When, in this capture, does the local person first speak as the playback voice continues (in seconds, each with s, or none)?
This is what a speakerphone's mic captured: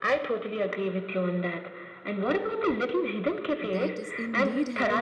3.6 s